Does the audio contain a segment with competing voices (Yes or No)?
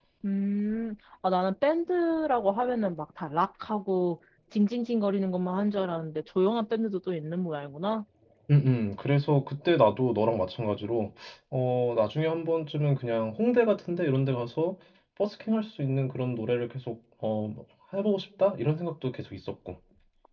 No